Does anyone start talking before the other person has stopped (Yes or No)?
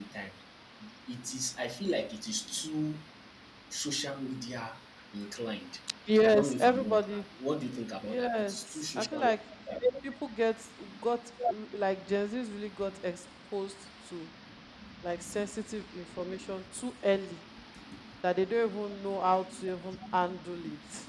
Yes